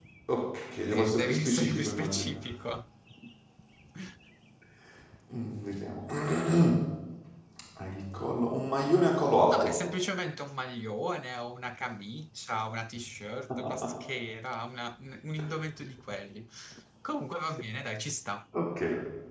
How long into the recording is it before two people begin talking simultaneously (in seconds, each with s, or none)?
0.9 s